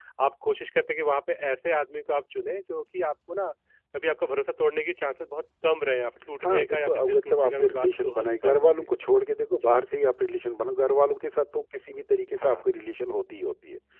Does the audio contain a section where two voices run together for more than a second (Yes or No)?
Yes